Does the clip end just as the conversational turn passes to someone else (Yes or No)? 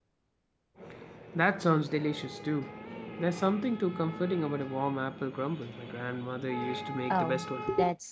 Yes